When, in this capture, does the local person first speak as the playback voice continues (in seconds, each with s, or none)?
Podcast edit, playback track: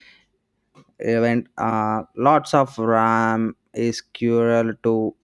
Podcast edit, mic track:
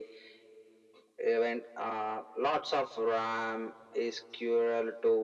none